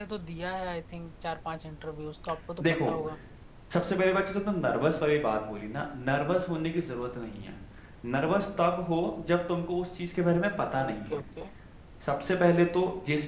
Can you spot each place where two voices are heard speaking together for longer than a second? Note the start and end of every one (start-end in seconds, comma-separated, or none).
none